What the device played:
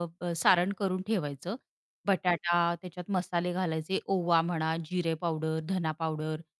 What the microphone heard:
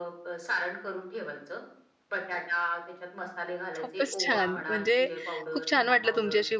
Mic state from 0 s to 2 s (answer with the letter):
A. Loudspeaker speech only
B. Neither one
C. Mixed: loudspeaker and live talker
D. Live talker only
A